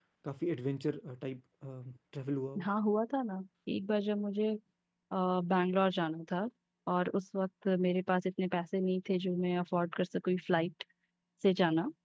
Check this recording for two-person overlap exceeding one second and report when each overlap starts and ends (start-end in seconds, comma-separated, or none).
none